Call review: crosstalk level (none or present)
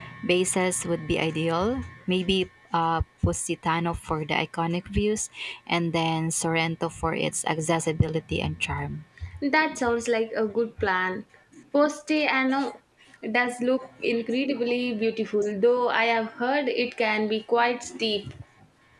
none